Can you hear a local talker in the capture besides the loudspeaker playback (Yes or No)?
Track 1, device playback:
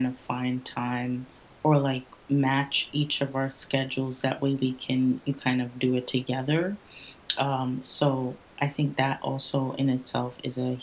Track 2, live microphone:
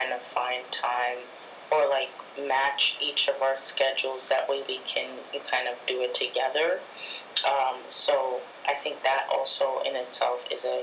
No